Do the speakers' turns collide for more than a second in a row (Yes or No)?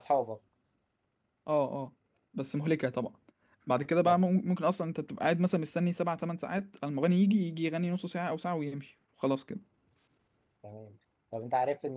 No